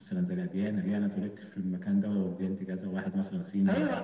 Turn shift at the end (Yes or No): Yes